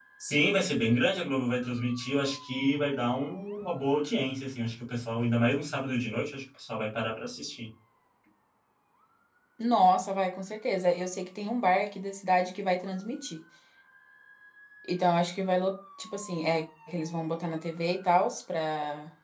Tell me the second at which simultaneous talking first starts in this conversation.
none

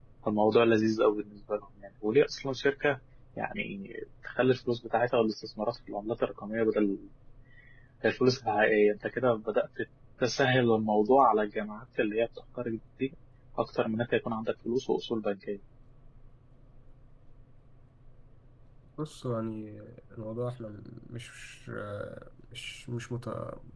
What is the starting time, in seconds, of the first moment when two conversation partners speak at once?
none

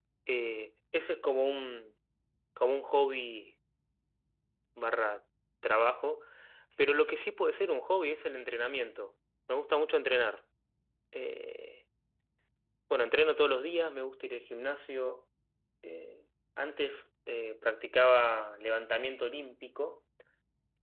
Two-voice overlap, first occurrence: none

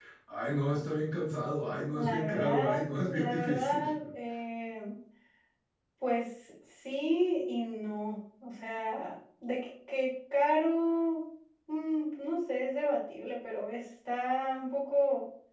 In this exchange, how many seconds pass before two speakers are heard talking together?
1.9 s

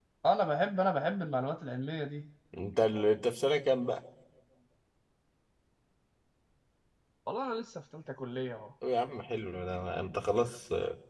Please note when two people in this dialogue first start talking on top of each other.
none

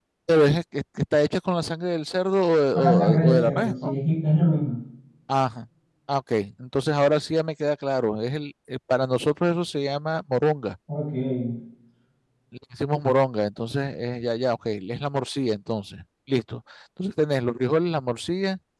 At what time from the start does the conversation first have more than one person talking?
2.7 s

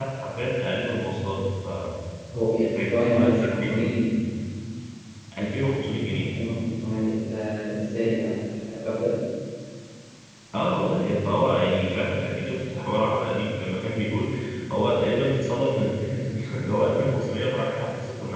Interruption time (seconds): 2.6 s

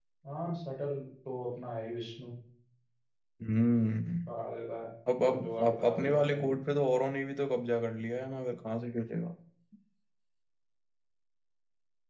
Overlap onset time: 5.2 s

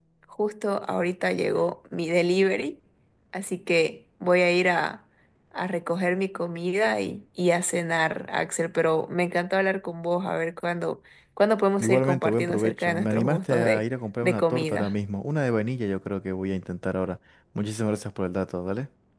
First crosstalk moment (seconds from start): 11.8 s

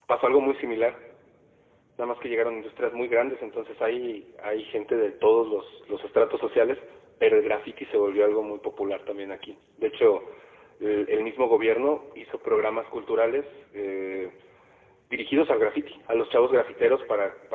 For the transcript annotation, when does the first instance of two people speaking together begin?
none

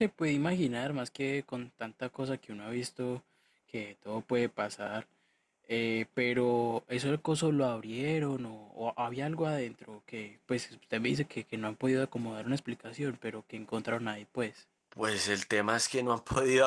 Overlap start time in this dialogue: none

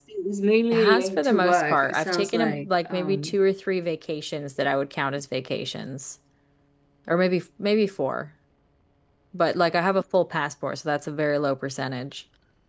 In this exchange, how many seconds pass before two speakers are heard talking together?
0.7 s

